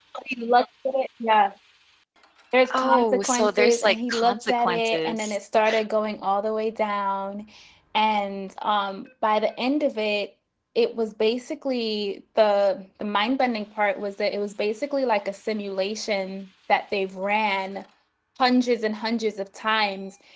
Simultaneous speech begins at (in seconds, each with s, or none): 2.7 s